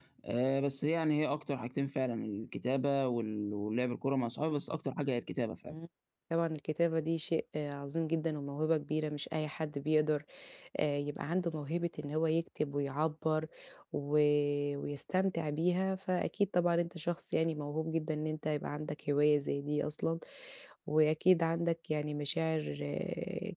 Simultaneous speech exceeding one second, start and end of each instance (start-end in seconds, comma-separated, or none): none